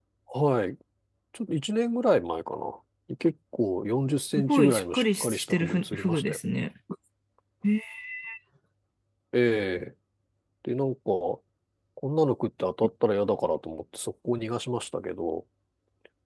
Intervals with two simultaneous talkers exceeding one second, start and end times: 4.3-6.4

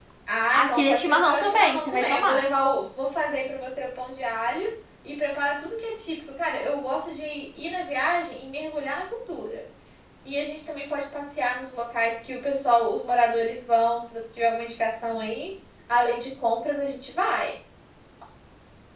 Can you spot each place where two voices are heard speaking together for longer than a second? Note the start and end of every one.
0.5-2.4

